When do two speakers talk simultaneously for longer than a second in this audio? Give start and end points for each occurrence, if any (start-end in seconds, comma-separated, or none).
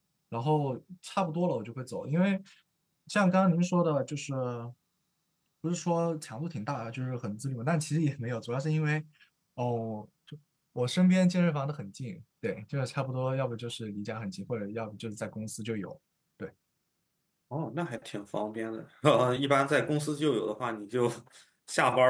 none